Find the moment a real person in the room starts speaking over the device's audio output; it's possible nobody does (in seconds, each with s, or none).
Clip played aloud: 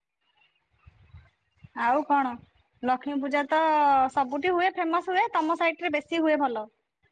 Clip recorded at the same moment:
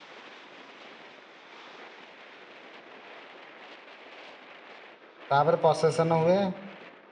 5.3 s